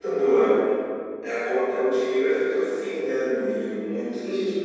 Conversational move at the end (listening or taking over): listening